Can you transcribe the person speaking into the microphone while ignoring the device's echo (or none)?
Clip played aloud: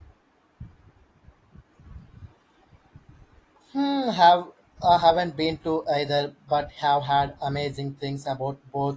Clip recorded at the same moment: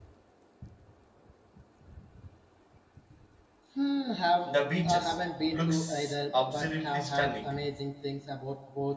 the beaches looks absolutely stunning